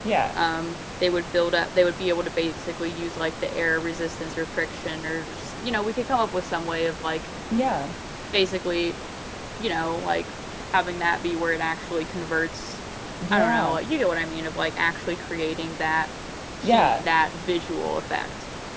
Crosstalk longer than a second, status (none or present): none